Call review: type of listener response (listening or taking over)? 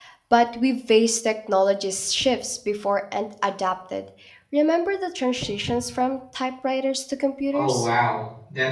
taking over